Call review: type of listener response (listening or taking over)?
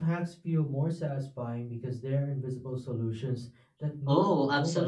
taking over